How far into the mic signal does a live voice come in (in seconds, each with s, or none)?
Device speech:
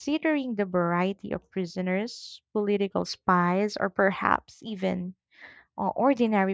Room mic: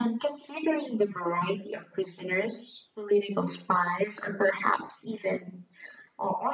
none